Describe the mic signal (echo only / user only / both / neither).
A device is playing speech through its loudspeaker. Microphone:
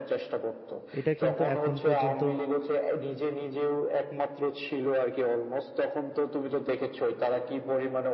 both